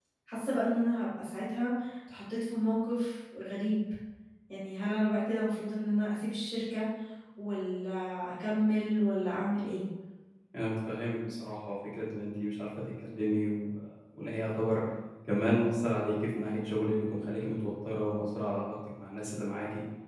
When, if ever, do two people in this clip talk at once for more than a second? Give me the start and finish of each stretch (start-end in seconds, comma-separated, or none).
none